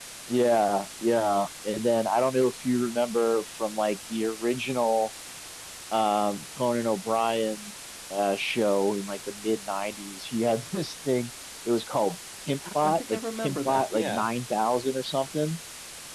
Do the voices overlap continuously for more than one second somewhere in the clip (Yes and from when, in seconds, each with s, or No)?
Yes, from 12.6 s